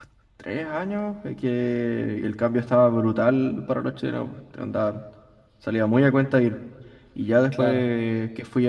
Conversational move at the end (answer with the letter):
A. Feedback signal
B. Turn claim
A